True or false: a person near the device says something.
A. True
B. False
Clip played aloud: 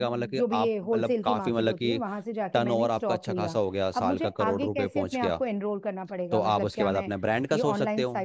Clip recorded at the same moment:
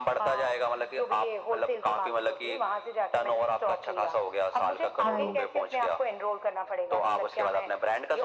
A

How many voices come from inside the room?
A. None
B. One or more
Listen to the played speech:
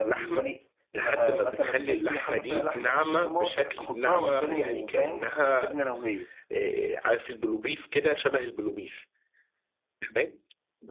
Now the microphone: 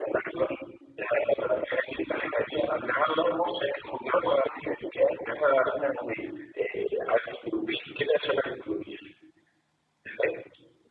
A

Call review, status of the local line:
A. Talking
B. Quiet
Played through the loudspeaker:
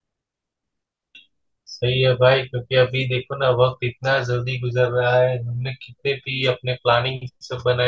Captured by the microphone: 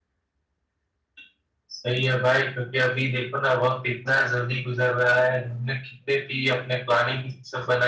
B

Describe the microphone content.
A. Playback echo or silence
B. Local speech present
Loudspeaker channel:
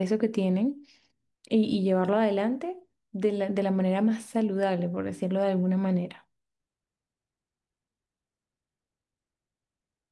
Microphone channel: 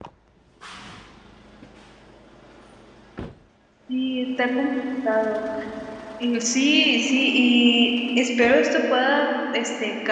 B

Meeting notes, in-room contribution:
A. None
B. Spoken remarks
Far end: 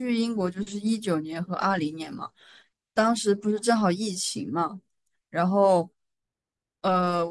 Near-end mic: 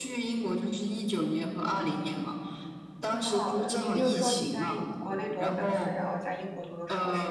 B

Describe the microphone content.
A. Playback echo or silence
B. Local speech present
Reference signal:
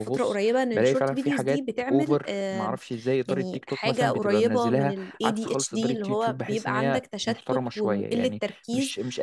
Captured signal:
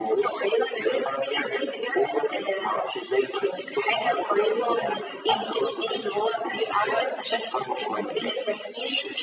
A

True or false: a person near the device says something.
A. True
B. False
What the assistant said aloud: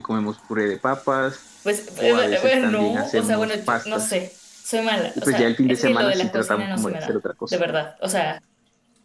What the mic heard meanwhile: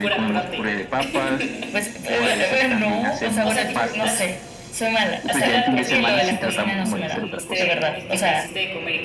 A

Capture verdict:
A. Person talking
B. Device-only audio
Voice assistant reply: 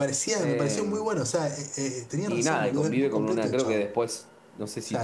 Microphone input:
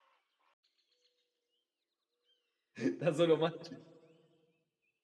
A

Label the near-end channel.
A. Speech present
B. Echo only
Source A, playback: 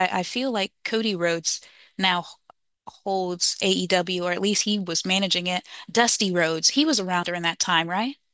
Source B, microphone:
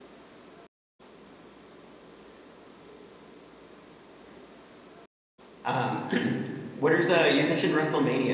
A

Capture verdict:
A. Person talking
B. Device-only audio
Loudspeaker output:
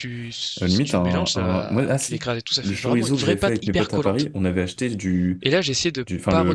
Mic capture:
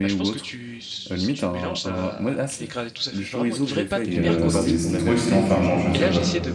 A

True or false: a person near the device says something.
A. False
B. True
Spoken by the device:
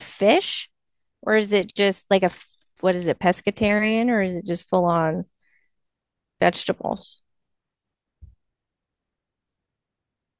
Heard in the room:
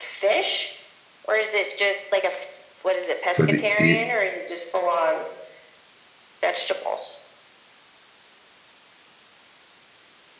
B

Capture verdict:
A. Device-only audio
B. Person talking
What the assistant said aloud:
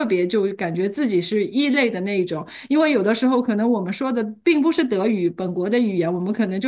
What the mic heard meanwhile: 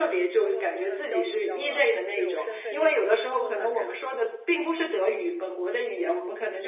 B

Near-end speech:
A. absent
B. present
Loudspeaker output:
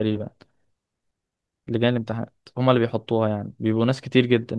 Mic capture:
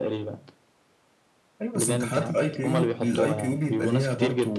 B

